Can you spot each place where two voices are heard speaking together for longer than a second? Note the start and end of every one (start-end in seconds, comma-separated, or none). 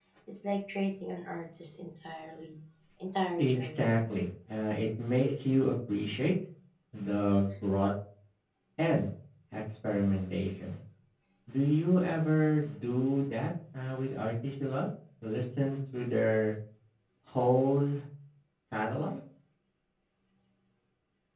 none